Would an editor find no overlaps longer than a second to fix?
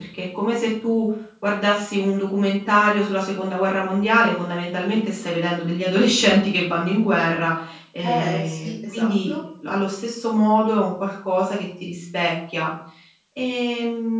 No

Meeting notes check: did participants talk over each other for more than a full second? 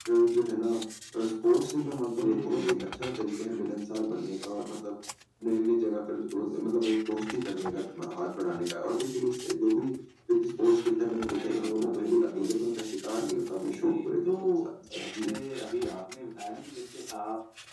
Yes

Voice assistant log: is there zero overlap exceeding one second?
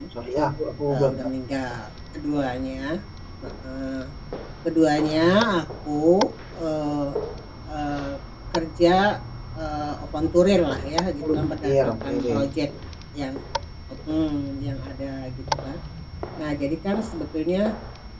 No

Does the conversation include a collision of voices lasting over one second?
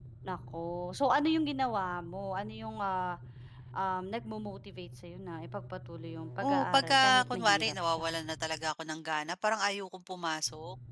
Yes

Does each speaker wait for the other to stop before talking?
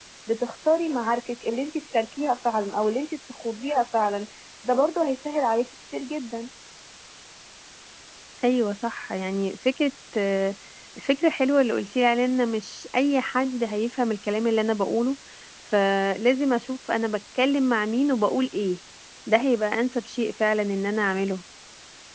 Yes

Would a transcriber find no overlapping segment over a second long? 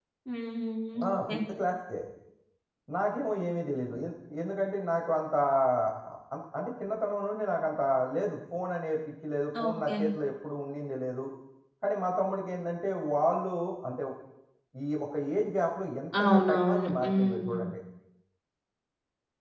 No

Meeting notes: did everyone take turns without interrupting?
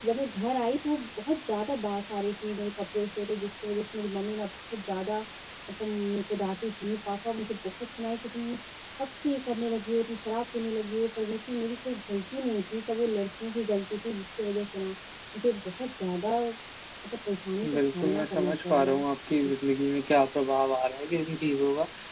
No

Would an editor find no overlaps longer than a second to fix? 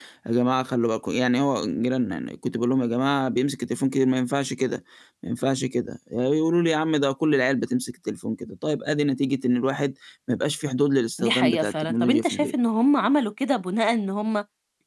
No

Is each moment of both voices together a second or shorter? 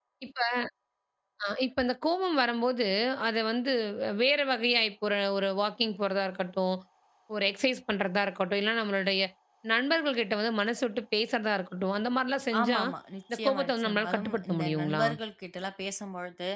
No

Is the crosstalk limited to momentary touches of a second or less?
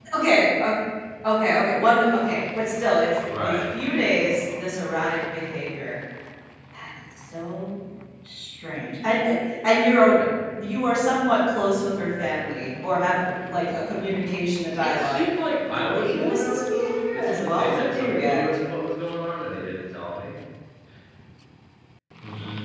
No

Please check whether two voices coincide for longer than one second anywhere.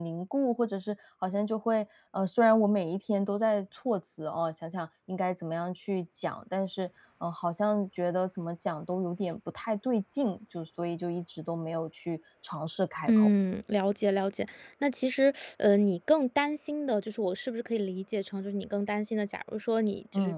No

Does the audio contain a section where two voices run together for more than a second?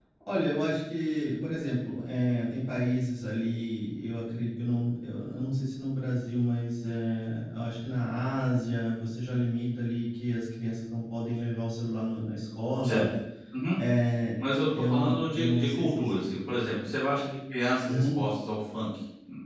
Yes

